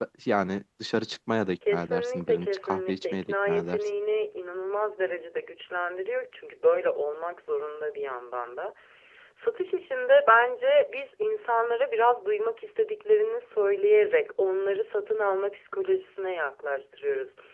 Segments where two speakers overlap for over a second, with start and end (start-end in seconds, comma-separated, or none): 1.7-3.8